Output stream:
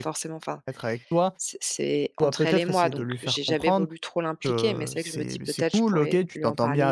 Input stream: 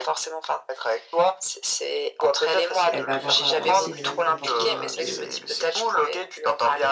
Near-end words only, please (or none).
elle va avoir, heu, aussi les mêmes comportements de